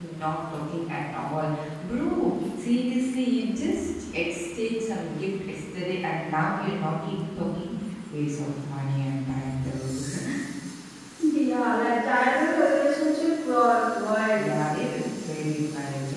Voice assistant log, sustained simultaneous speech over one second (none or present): none